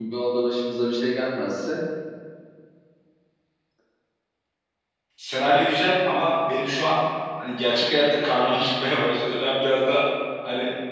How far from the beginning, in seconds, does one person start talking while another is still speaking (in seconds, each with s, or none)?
none